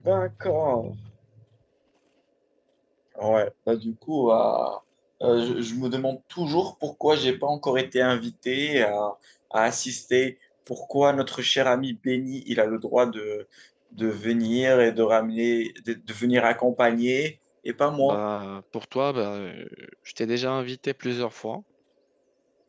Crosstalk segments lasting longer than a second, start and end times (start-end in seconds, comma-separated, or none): none